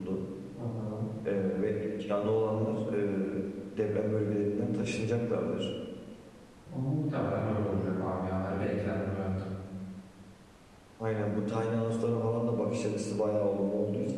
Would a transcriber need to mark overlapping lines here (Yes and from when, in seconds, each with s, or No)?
No